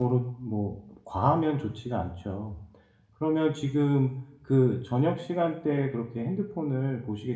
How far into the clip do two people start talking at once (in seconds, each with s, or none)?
none